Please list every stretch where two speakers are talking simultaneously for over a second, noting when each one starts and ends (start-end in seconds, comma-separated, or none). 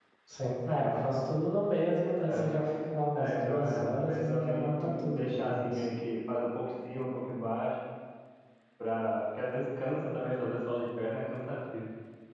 3.1-5.8